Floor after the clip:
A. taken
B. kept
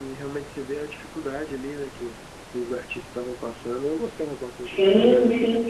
A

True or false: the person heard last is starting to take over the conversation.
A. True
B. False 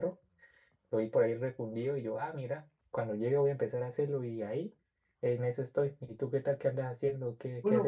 A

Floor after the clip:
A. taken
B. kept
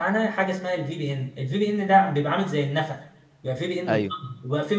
B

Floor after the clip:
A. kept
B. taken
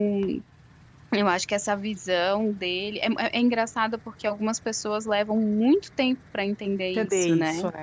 B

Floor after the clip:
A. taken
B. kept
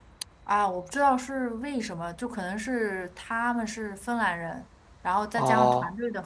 B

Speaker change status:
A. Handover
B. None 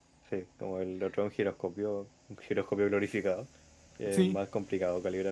B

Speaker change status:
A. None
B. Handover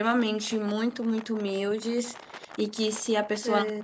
A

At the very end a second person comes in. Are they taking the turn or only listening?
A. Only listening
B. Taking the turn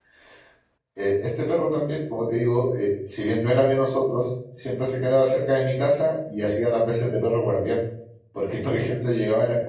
A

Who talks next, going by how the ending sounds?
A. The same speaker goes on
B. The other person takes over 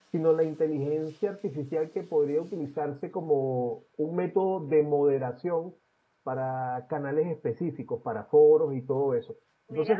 A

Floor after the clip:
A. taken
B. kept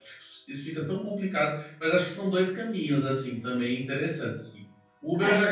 B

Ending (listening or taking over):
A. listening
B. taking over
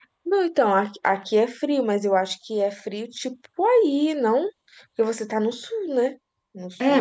B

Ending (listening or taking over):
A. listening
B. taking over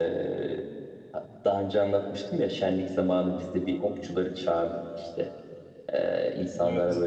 A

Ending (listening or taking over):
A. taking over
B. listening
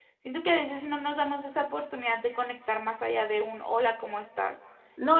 A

